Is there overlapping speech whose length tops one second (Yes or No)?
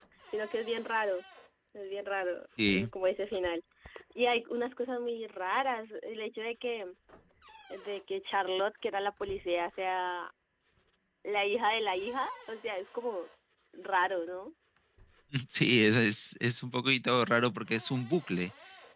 No